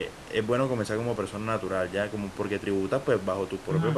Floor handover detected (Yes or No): No